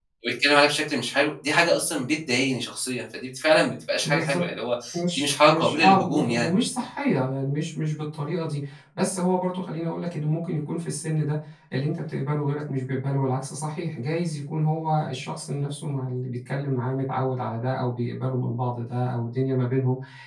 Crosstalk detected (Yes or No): Yes